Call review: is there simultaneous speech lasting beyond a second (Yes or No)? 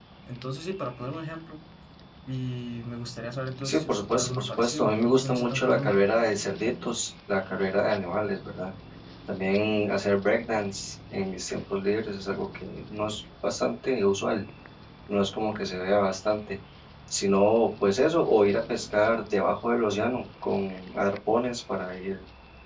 Yes